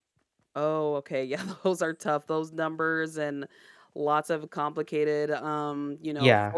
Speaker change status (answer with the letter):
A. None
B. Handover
A